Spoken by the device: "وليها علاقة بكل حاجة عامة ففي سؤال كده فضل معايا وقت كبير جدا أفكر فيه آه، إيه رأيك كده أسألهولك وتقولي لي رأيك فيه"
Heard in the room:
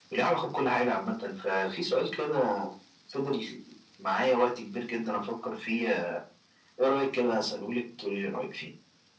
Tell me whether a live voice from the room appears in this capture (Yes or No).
No